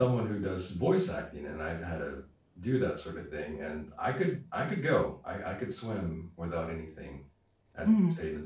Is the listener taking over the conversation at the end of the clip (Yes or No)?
Yes